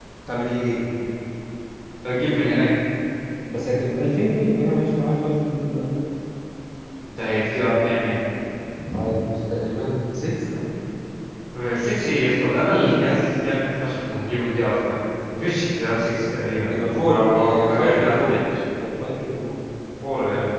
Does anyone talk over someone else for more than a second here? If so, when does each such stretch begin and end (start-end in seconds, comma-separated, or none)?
16.7-18.4